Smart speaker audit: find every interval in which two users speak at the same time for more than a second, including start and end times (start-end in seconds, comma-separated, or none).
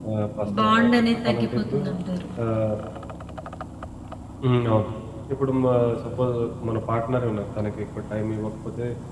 0.6-1.8